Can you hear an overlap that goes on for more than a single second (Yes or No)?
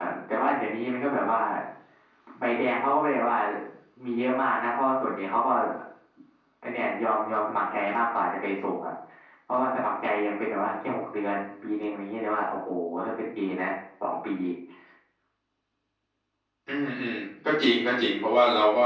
No